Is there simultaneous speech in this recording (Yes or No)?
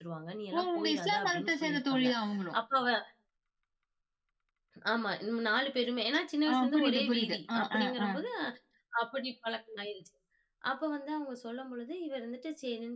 Yes